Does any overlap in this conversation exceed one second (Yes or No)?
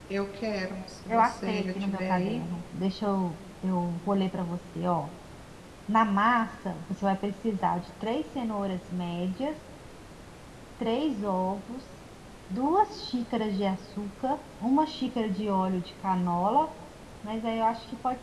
Yes